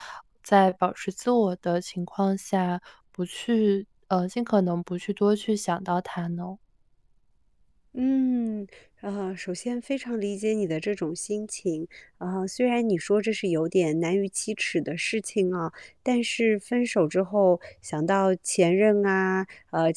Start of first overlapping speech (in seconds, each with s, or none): none